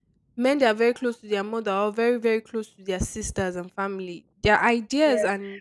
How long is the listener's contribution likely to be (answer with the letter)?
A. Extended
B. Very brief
A